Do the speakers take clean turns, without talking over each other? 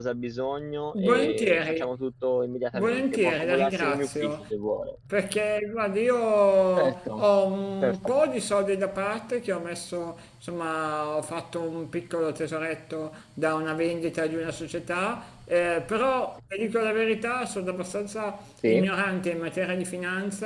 No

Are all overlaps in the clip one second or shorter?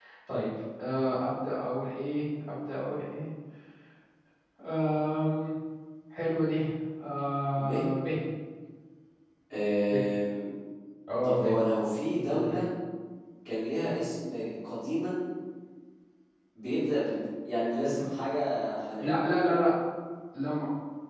Yes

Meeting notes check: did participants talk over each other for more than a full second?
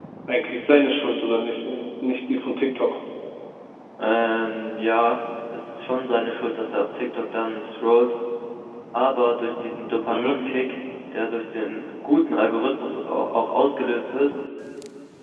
No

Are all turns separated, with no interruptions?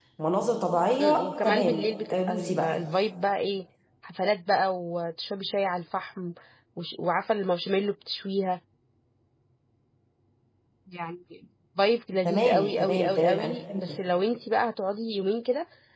No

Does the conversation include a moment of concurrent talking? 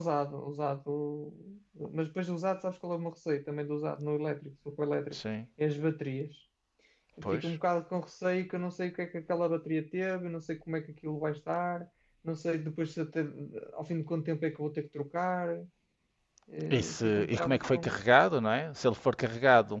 Yes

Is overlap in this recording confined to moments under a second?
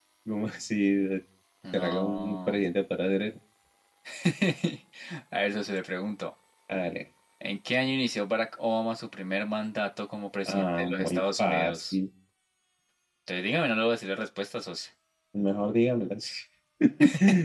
No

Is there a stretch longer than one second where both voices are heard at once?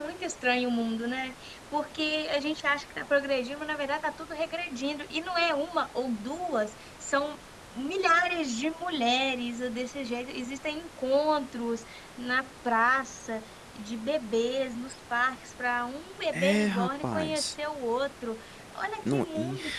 Yes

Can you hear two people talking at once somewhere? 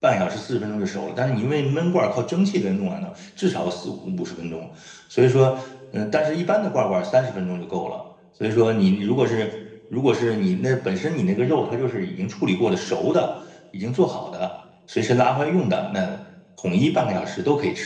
No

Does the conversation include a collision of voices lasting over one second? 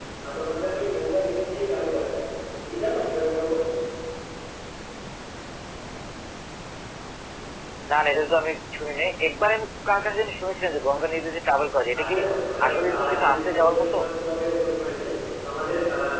Yes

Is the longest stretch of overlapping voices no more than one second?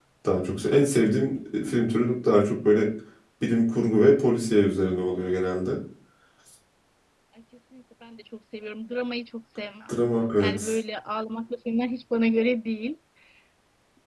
Yes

